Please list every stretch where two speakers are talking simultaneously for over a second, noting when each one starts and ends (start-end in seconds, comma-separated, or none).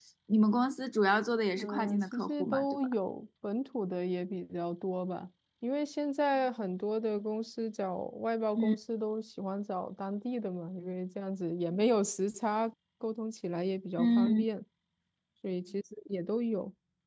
1.6-2.9